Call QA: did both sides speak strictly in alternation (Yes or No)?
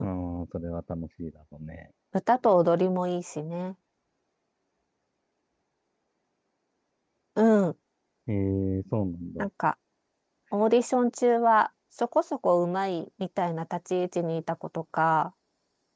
Yes